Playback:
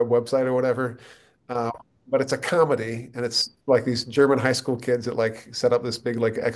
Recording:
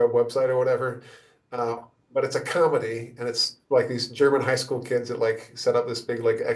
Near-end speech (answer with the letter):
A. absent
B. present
A